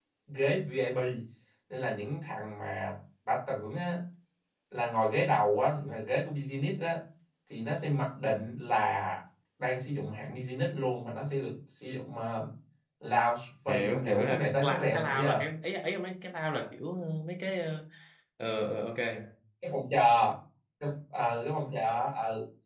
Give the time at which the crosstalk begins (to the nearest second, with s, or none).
14 s